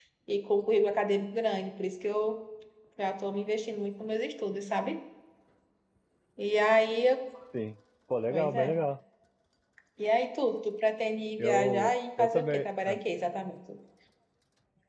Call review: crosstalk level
present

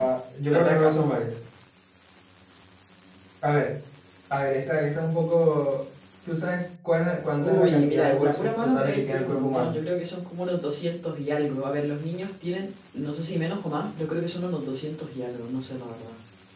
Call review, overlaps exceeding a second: present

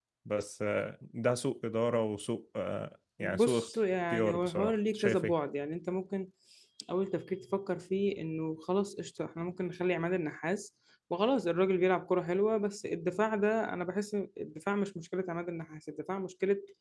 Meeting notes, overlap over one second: present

